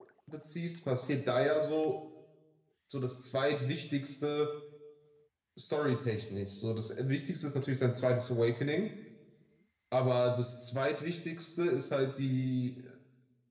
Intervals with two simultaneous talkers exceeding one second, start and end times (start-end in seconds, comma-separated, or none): none